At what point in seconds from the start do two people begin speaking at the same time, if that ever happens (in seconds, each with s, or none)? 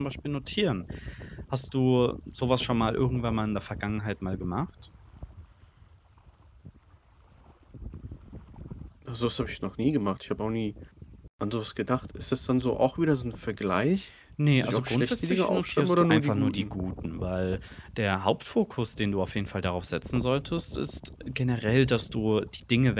14.6 s